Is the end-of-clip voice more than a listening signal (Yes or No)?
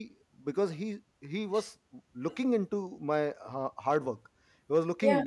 No